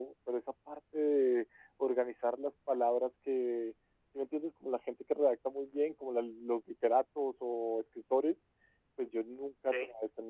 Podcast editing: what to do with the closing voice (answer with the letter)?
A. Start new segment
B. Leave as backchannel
B